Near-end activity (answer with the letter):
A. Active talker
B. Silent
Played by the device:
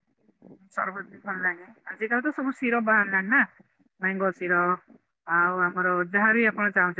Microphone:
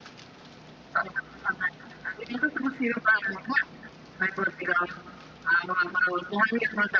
B